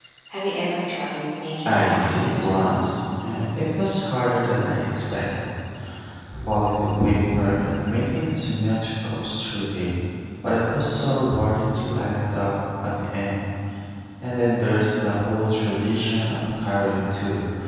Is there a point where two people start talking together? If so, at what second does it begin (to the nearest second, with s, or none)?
2 s